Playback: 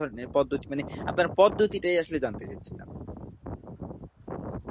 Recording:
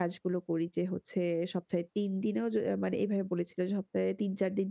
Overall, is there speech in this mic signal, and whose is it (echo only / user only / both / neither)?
user only